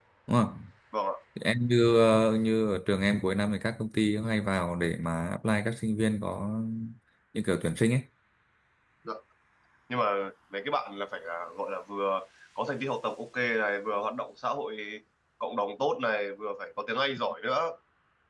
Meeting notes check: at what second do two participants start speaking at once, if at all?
none

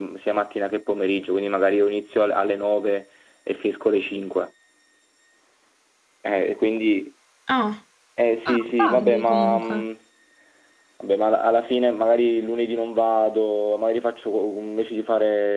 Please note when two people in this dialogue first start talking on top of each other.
8.4 s

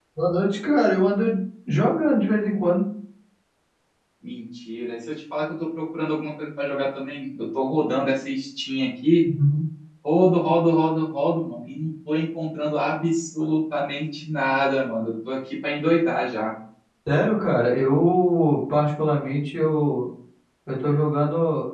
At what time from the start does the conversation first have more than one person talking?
none

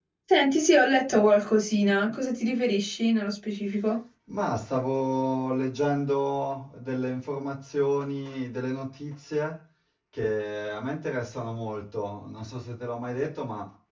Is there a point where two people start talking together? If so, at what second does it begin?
none

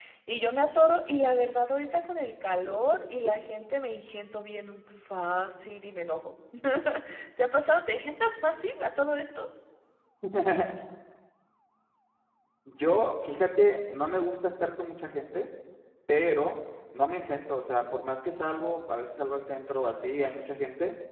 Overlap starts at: none

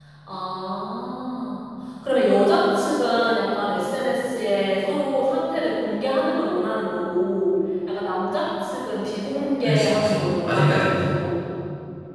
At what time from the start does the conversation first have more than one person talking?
9.6 s

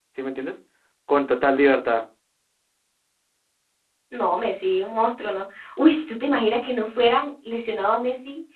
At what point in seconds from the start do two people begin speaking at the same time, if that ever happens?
none

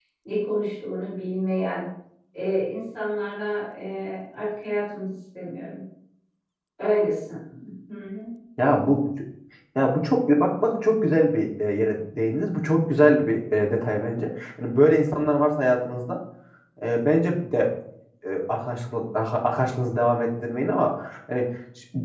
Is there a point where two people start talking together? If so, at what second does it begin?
none

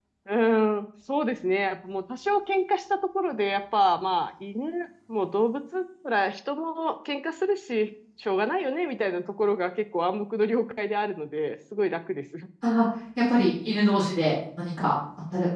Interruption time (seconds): none

